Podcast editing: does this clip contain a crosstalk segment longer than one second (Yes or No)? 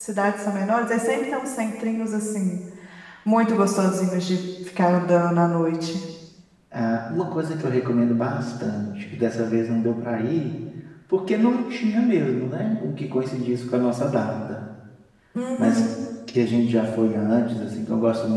No